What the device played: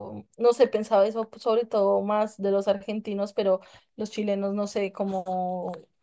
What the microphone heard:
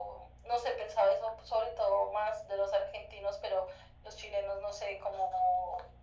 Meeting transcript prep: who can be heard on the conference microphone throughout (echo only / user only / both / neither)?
echo only